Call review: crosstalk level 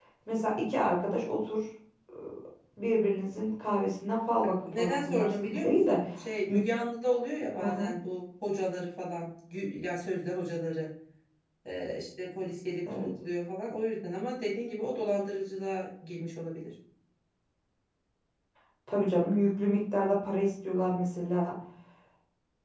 present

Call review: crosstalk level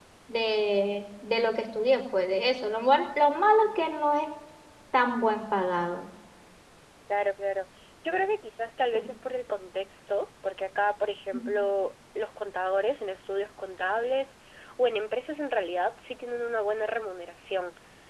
none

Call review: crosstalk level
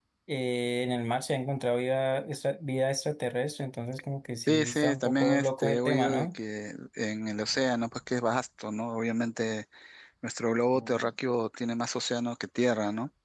present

